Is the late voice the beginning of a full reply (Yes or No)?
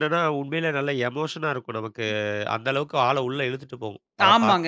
Yes